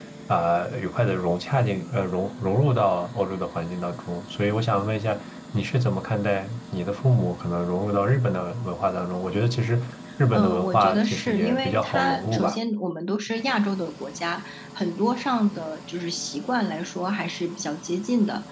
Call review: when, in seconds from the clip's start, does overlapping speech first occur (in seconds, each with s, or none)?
10.3 s